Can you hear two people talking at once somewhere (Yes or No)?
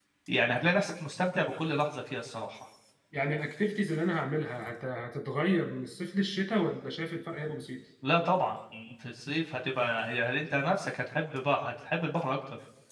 No